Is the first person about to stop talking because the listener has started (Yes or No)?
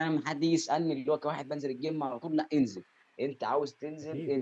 No